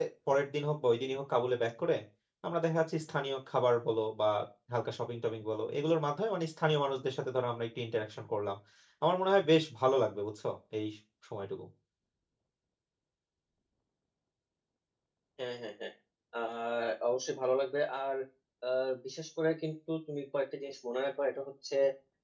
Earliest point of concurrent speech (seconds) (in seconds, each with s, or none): none